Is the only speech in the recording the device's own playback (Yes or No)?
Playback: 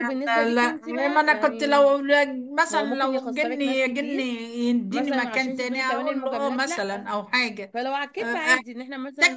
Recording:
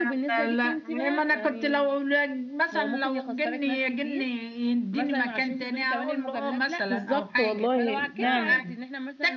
No